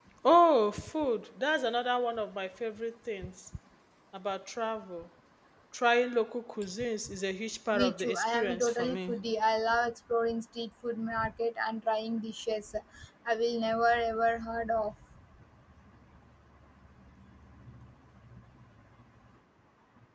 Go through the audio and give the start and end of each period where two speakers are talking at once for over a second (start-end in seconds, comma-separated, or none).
7.7-9.1